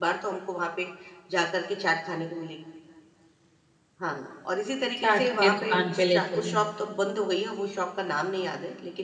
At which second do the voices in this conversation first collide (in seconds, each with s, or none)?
5.0 s